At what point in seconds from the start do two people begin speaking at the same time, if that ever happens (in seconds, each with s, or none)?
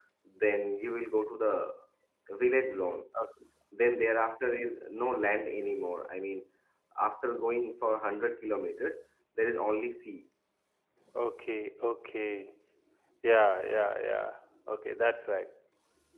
none